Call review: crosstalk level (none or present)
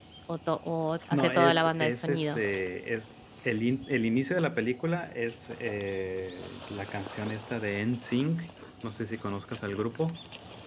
present